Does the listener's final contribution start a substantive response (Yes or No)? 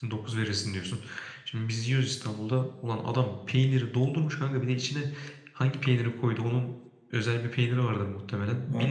No